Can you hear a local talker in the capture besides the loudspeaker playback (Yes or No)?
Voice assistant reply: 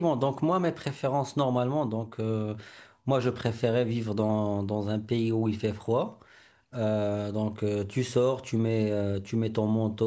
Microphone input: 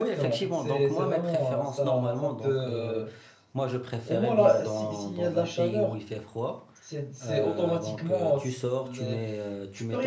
Yes